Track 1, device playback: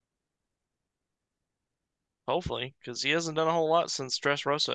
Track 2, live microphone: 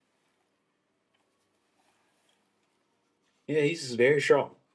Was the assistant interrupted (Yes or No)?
Yes